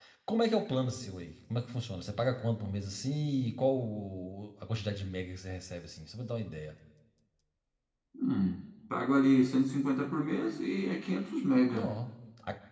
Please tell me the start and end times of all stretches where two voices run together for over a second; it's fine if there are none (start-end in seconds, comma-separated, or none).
none